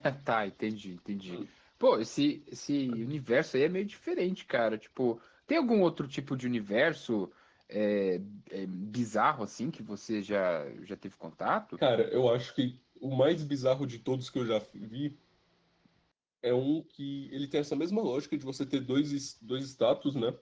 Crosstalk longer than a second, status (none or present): none